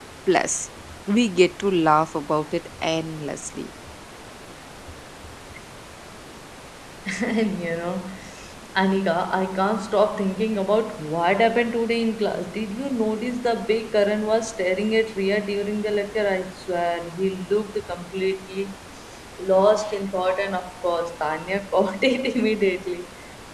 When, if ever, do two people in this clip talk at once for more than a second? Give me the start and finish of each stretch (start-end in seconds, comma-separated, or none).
none